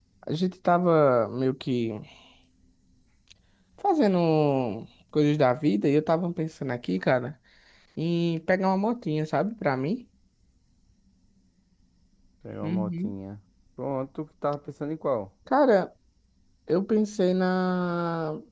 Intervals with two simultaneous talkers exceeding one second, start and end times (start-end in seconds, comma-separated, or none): none